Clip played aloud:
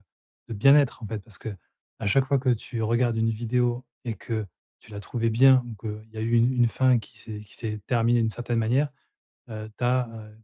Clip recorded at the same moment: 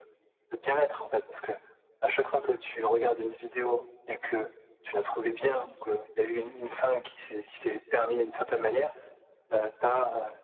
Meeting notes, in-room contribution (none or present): none